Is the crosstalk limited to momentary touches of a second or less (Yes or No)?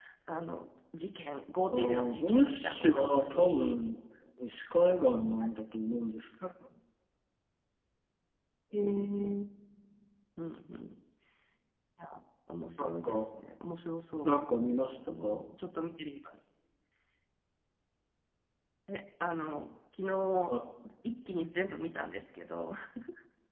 No